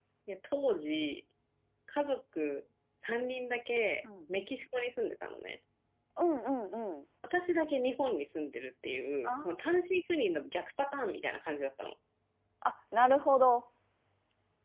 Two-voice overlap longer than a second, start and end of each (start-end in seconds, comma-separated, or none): none